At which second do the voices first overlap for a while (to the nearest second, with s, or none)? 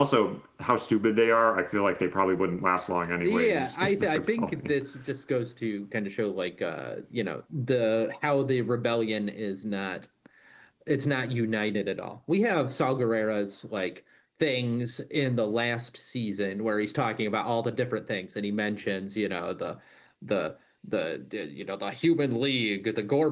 3 s